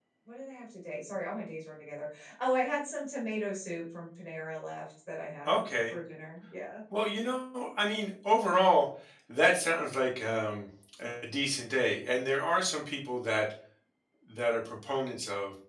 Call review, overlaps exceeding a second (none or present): none